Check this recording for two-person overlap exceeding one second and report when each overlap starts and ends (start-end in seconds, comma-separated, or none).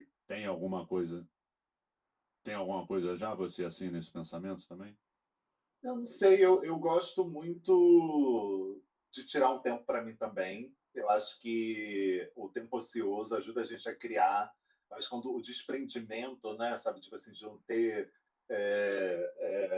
none